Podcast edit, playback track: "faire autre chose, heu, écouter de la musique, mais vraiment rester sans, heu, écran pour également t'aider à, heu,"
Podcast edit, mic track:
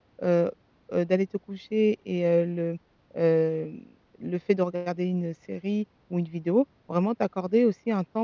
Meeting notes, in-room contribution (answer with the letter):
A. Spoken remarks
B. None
A